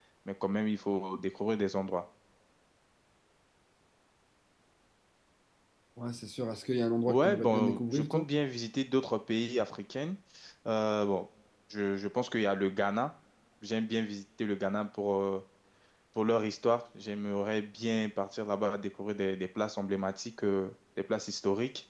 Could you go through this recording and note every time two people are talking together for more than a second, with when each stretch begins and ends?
7.1-8.3

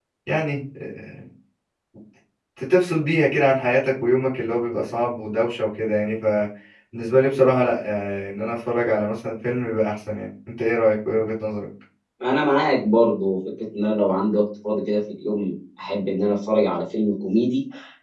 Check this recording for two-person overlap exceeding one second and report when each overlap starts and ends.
none

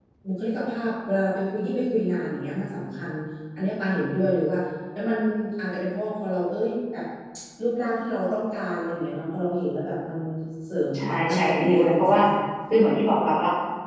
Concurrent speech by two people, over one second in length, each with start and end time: 10.9-12.2

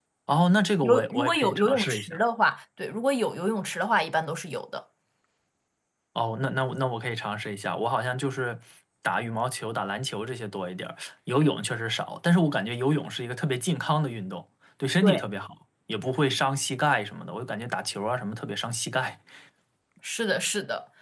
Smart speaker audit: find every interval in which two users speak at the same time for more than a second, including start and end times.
0.8-2.2

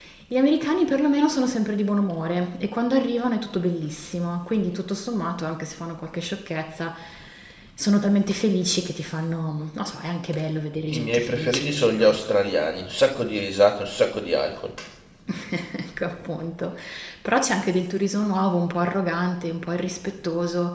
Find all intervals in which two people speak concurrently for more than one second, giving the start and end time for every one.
10.9-12.2

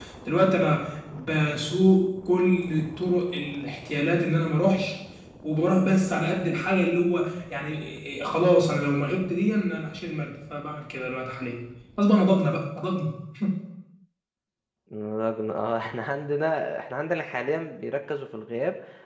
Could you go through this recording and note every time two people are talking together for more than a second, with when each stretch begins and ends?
none

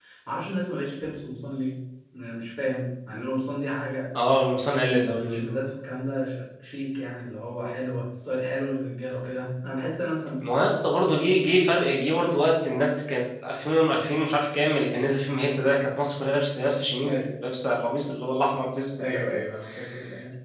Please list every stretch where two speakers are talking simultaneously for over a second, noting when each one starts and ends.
none

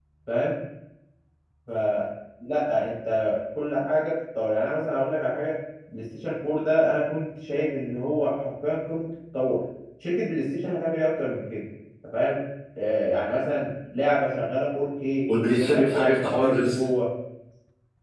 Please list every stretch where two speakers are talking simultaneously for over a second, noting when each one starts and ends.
15.6-16.8

